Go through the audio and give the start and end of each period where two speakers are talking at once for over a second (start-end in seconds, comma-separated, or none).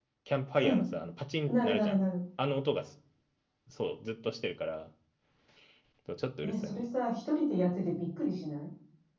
none